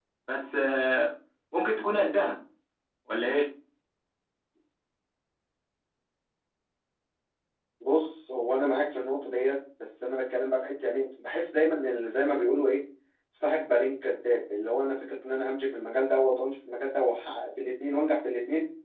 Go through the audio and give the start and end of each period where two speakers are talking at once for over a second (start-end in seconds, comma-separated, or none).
none